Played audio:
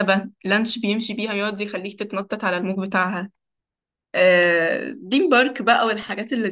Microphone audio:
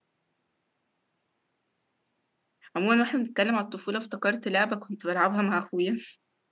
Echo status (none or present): none